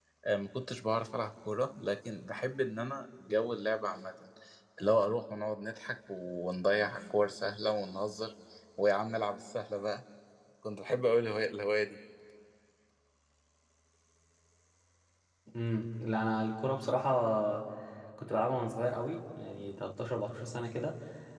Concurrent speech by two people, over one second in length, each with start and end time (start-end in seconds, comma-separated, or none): none